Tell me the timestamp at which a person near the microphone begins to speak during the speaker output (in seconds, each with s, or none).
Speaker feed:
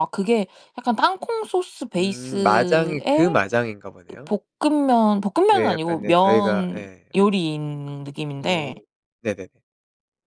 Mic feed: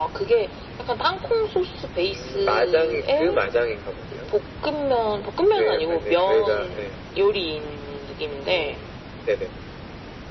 none